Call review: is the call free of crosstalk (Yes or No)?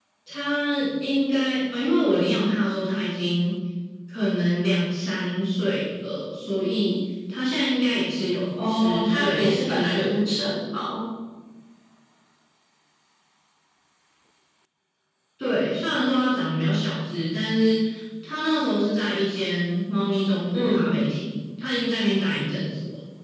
No